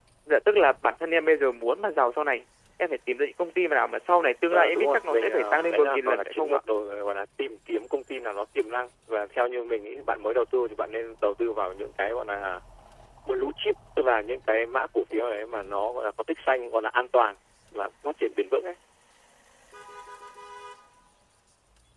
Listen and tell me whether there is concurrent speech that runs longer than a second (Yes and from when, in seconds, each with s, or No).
Yes, from 4.5 s